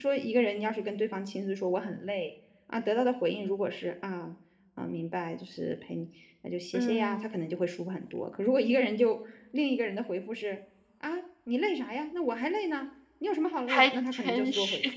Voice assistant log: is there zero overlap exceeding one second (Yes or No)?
No